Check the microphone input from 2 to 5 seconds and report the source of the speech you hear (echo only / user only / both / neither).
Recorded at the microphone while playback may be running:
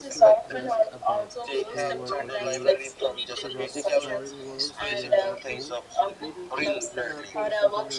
both